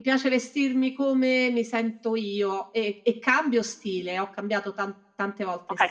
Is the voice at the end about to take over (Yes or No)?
Yes